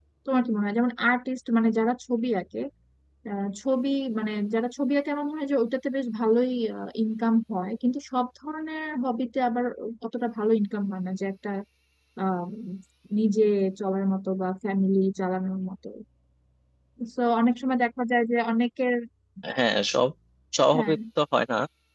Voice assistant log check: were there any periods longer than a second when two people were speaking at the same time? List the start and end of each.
none

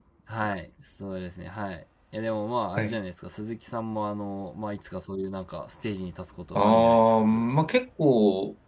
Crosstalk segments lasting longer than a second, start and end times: 6.5-7.8

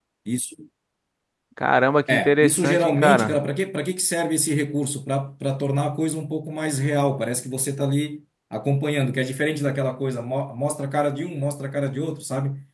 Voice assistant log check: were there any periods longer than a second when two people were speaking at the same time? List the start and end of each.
2.1-3.4

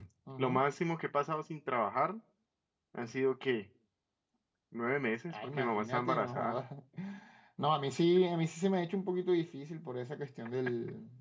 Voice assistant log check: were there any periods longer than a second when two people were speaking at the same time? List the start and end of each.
5.3-6.6

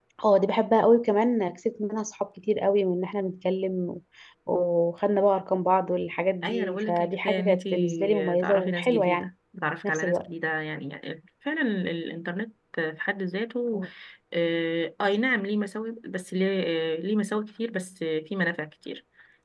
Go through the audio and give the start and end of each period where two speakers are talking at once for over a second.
6.4-9.3

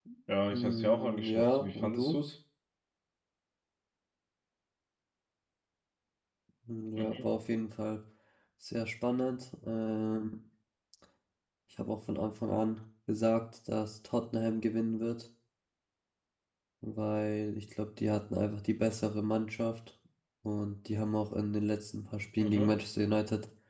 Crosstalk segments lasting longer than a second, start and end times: 0.5-2.2

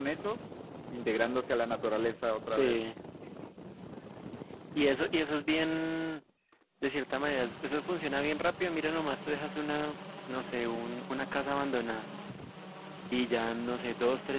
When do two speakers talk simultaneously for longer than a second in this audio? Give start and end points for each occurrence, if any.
none

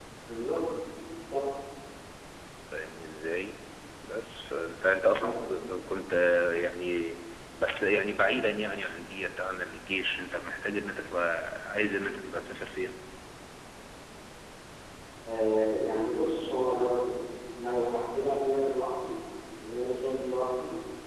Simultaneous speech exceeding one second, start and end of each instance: none

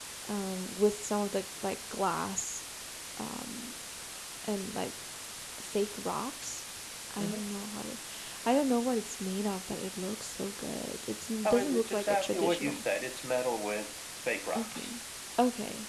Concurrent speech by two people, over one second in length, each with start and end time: 11.4-12.8

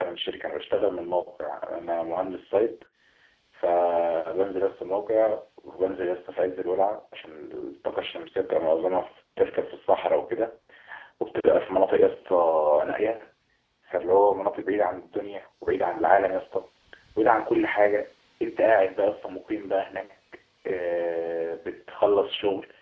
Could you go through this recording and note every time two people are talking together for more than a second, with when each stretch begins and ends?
none

